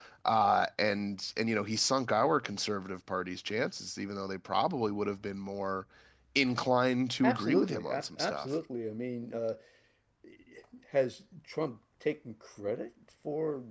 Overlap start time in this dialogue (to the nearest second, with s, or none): 7 s